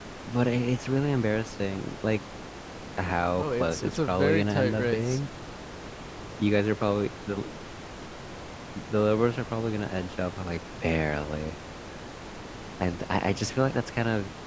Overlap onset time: 3.4 s

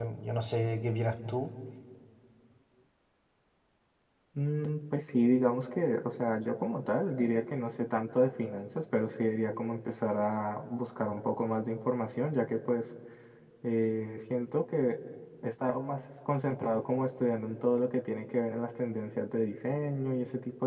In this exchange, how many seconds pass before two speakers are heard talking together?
none

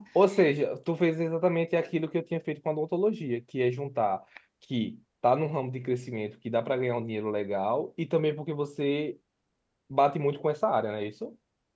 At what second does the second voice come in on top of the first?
none

